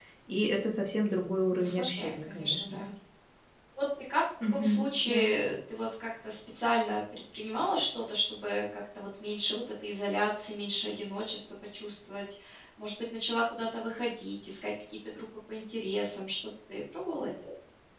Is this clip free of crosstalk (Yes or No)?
No